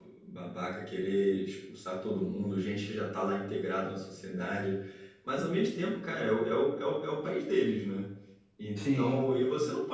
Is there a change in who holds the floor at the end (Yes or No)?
No